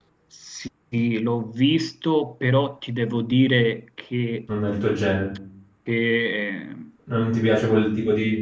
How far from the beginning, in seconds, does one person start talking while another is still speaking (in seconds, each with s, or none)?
none